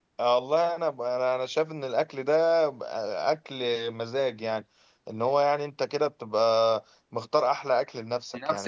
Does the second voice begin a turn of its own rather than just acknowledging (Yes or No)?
Yes